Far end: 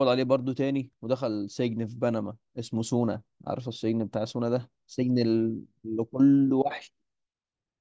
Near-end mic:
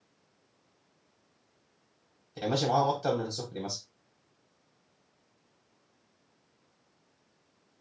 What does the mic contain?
user only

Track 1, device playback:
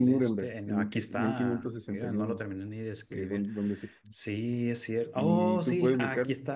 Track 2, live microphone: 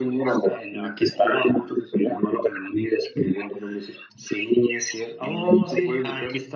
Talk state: echo only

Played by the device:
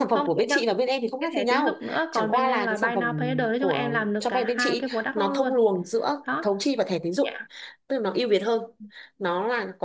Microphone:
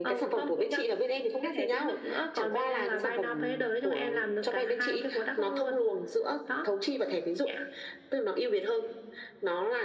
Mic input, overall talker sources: echo only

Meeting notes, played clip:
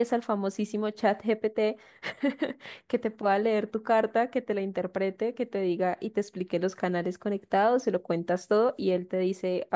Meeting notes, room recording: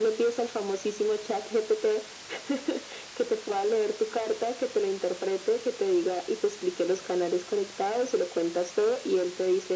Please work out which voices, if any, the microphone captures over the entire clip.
echo only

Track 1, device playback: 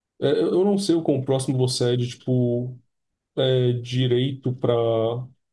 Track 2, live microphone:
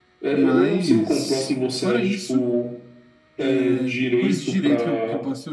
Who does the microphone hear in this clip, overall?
both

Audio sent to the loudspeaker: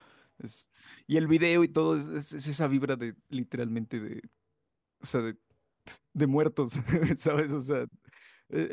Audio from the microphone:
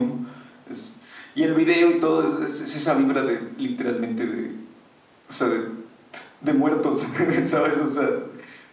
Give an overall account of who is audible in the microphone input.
echo only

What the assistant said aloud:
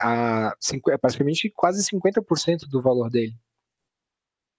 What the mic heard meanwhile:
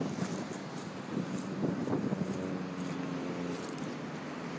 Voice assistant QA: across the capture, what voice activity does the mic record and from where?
neither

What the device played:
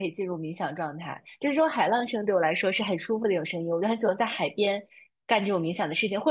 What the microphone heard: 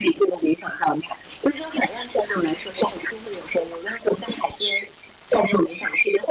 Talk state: echo only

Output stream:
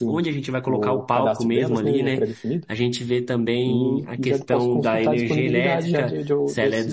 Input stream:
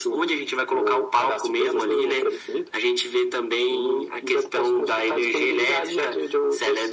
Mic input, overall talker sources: echo only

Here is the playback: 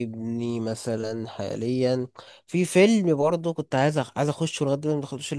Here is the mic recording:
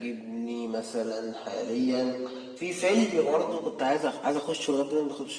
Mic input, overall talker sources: echo only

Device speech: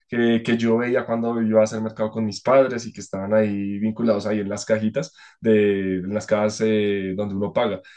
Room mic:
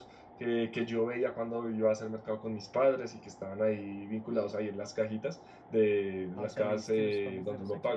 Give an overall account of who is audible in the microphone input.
both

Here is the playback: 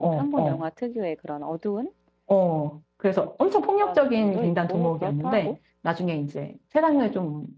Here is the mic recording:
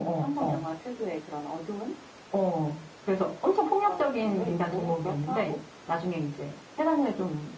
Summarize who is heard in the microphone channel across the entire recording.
echo only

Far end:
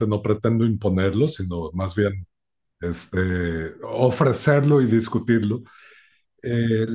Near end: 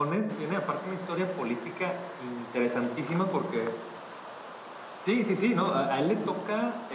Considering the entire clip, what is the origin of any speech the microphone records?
user only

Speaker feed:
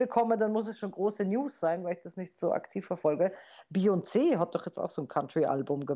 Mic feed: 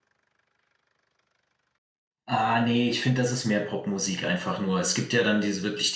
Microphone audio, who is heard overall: user only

